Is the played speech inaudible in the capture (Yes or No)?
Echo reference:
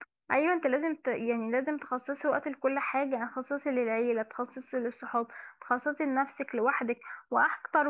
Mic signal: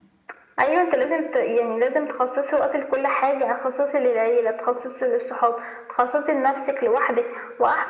No